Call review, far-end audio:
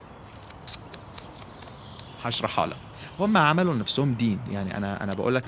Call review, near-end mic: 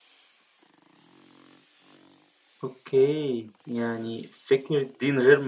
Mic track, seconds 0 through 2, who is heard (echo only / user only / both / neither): neither